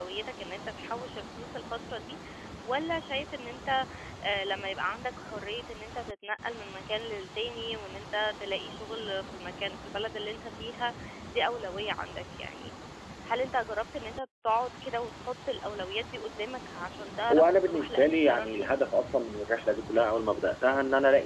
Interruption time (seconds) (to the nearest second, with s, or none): 17 s